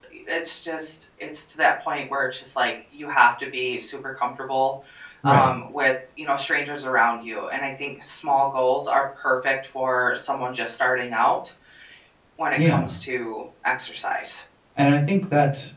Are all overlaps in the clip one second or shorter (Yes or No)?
Yes